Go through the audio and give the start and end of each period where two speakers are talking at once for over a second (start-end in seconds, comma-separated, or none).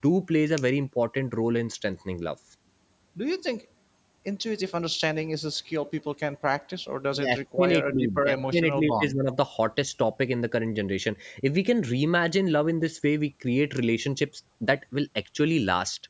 7.2-9.1